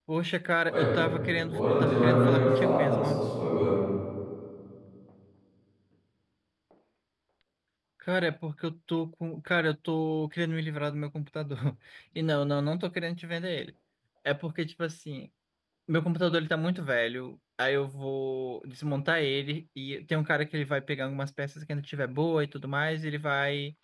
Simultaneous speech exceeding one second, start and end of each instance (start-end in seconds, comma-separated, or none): 1.5-3.2